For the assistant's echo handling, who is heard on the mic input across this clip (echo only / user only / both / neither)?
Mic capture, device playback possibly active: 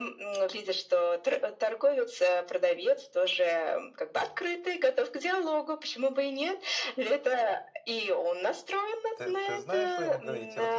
both